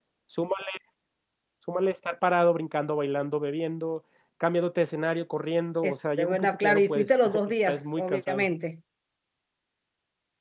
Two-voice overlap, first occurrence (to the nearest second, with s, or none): 6 s